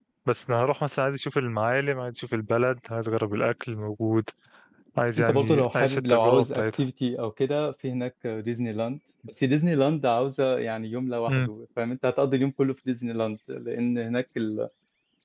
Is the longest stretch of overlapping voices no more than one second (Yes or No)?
No